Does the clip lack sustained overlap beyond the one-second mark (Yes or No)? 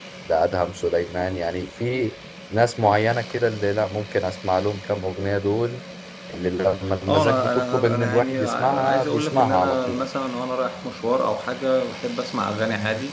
No